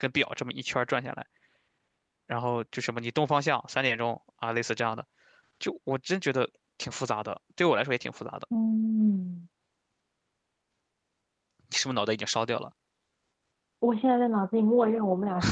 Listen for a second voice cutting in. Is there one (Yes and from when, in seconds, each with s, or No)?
No